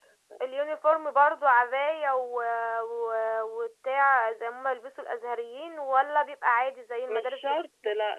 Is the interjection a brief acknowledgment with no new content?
No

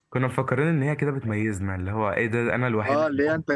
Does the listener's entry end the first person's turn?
Yes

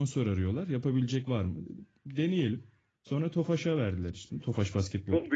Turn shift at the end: Yes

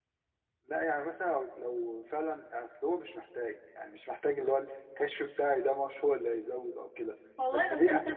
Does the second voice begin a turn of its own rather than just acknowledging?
Yes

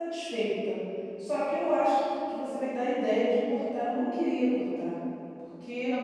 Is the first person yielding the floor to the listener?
No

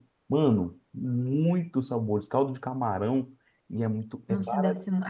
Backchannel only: No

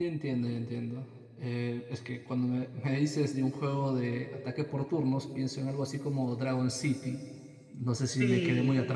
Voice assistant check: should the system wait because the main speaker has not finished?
Yes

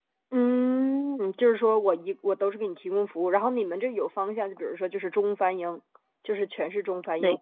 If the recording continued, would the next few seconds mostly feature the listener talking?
No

